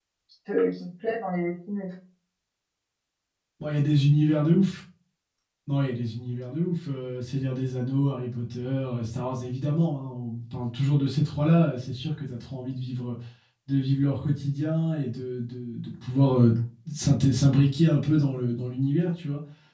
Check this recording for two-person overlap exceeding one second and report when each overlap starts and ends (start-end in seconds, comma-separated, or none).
none